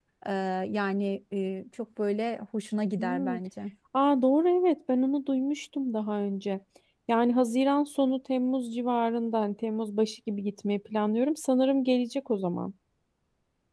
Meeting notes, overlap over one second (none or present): none